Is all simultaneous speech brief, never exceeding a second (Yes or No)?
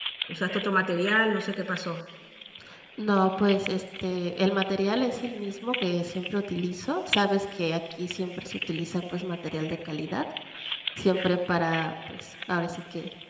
Yes